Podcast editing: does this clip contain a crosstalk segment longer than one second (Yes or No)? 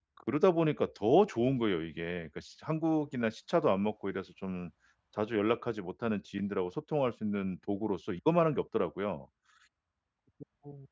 No